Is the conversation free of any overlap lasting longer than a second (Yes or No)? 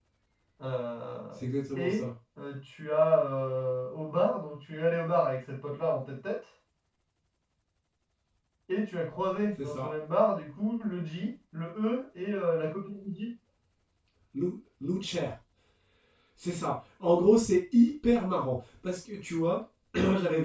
Yes